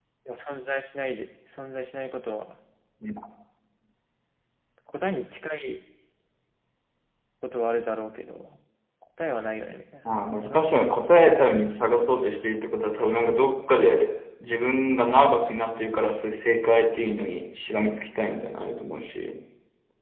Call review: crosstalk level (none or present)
present